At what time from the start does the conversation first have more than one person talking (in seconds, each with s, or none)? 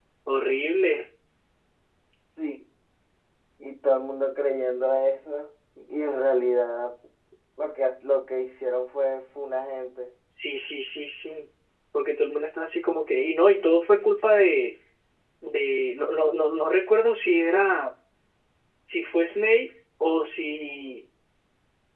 none